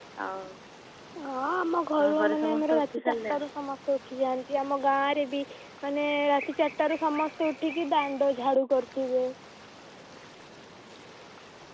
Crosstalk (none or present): present